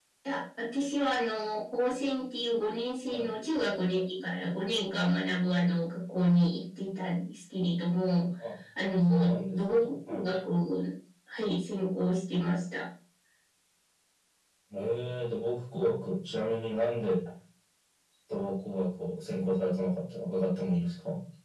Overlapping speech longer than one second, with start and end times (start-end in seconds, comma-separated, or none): 9.1-10.3